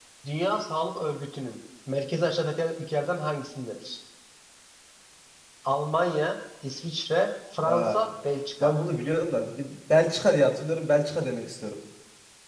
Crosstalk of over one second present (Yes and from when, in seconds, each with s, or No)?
No